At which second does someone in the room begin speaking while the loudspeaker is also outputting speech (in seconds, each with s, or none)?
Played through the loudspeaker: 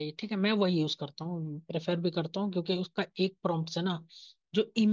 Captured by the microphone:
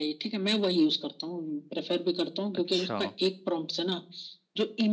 2.5 s